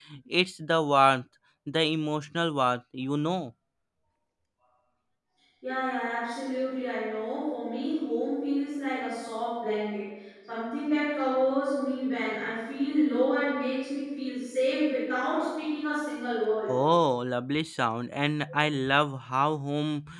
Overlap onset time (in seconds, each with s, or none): none